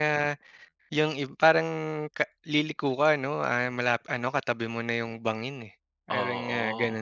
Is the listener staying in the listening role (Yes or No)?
No